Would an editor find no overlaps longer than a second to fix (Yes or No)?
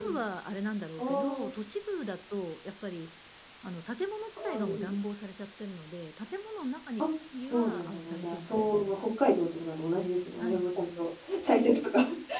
No